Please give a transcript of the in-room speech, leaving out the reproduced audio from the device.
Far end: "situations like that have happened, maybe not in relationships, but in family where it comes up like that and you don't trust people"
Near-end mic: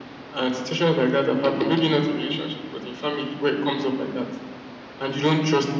none

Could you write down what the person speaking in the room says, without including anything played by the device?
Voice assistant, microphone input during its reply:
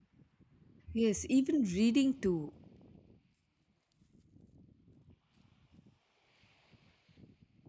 Yes, even reading too.

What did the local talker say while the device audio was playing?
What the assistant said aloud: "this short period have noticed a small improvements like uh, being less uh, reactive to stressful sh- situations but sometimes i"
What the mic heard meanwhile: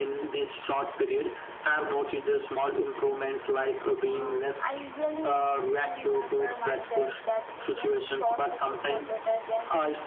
Um, I usually use it to remember myself that even short sections are better than

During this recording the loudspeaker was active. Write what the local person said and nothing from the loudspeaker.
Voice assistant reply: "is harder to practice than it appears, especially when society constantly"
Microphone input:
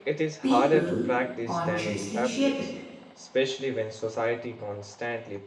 people consciously shape it.

